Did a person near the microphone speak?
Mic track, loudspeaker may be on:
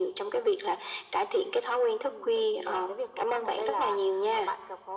No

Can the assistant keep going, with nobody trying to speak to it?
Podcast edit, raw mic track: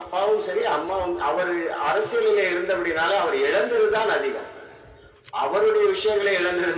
Yes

